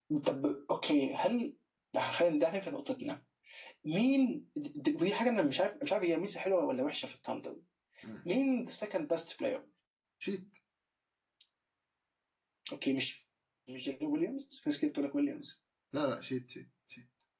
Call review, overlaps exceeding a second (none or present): none